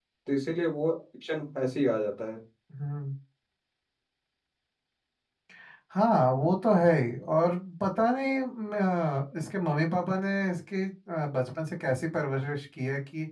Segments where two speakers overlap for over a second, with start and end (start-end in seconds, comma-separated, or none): none